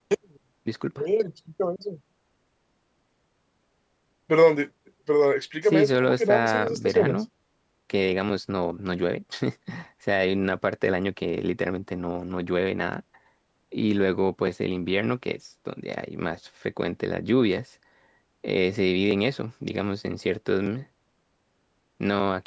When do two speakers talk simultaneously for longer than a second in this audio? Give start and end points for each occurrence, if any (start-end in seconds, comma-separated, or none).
5.6-7.2